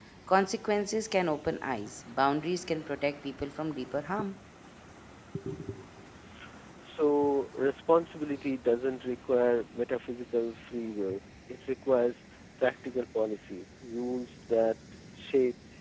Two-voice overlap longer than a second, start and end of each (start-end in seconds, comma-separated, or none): none